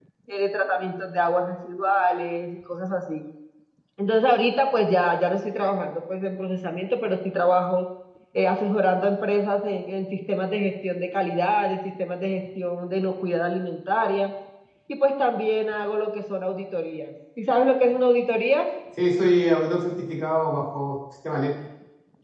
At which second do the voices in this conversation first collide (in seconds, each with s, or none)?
none